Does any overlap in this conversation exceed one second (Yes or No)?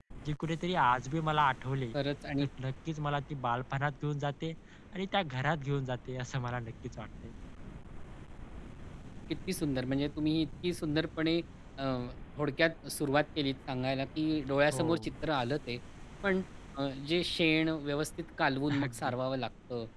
No